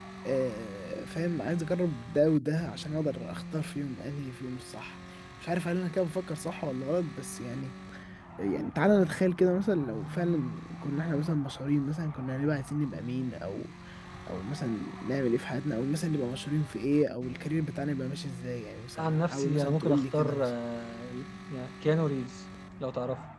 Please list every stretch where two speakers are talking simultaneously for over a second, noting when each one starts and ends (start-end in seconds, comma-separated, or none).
19.0-20.5